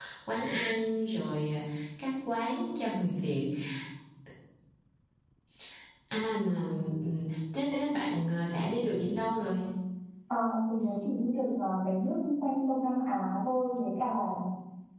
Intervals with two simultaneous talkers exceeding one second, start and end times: none

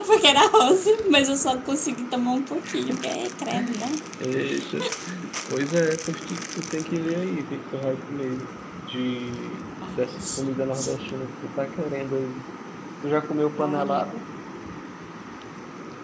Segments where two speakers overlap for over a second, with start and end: 10.0-11.2

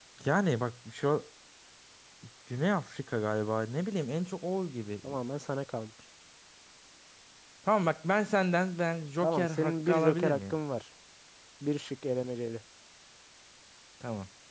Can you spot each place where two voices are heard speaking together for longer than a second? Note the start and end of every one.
9.2-10.6

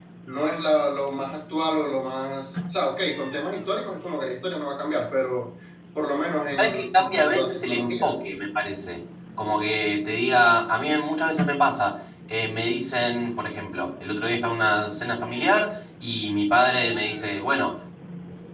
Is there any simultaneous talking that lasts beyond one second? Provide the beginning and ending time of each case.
6.6-8.1

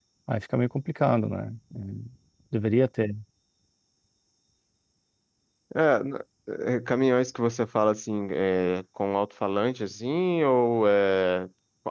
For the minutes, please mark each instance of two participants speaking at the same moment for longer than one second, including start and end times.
none

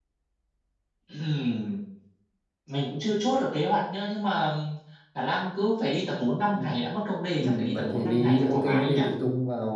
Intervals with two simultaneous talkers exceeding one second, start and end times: 7.4-9.0

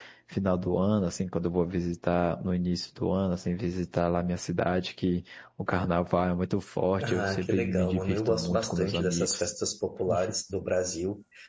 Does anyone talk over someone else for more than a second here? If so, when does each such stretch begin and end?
7.0-9.5

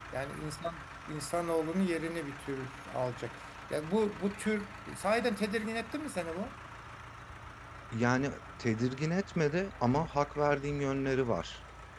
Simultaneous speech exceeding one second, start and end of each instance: none

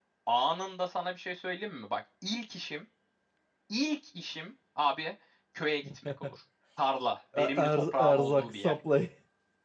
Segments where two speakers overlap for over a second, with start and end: 7.4-8.8

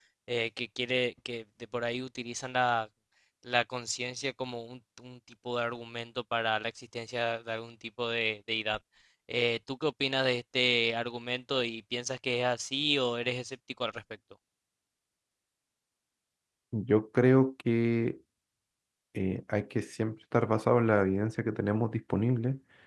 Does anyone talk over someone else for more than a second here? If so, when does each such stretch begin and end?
none

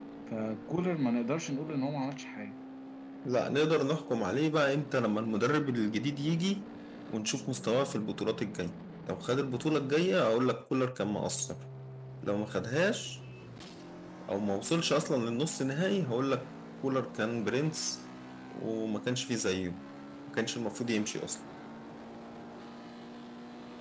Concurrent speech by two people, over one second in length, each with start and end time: none

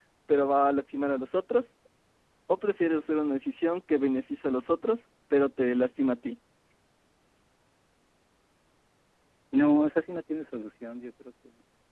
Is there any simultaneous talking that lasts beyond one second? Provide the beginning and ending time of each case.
none

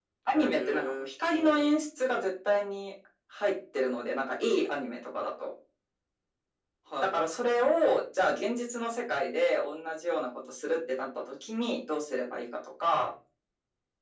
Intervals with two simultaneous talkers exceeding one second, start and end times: 0.5-1.7

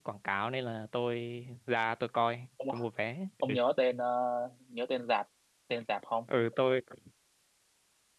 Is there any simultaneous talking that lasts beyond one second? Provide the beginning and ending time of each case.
none

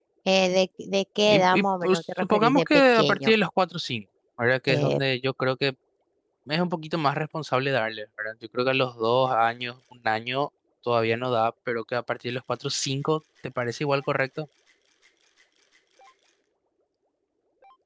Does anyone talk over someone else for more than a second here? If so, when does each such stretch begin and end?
1.2-3.3

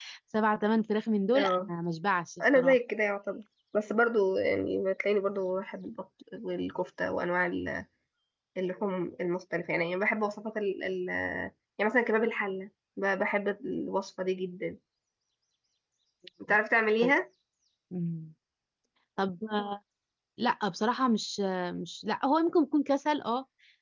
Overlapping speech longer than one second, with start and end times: none

